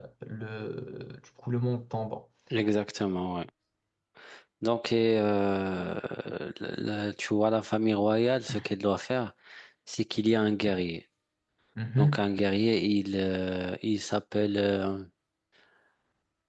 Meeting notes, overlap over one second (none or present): none